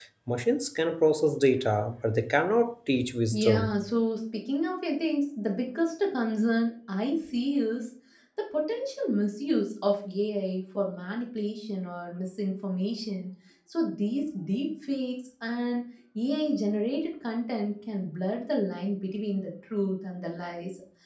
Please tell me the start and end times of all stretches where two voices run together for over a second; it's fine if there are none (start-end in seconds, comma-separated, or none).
none